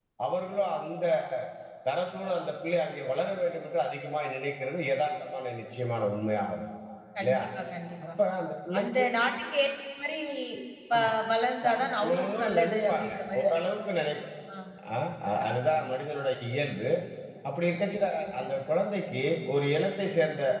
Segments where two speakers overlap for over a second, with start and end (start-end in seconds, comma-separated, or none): 11.7-13.4